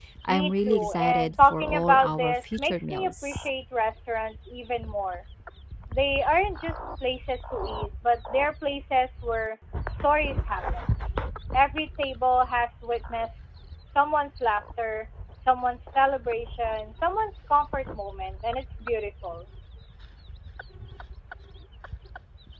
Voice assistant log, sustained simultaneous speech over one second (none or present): present